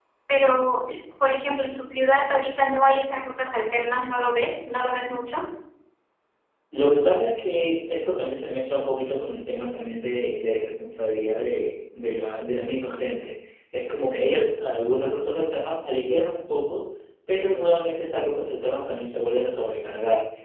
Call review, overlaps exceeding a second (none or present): none